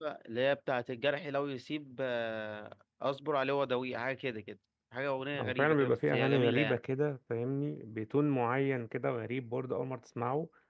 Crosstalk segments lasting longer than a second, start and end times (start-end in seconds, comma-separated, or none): 5.4-6.8